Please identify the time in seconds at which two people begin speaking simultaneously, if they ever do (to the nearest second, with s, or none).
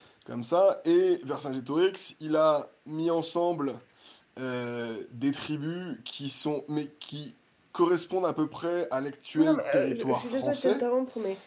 9 s